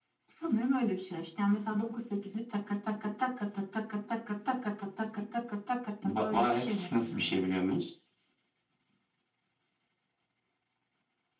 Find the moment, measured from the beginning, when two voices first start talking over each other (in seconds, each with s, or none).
6.0 s